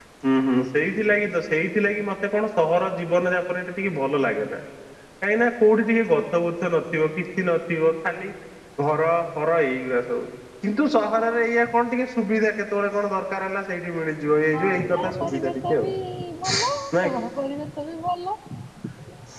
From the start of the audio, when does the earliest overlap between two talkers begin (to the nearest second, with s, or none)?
15 s